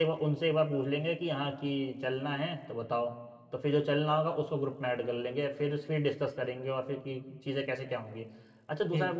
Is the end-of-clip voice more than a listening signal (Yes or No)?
No